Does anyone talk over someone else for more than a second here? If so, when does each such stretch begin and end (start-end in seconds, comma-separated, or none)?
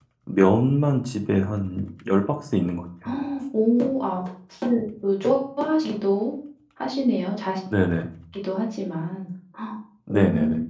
none